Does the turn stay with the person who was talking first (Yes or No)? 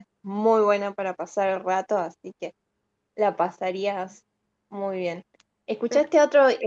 Yes